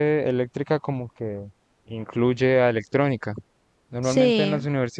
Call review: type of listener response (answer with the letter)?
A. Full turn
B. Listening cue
B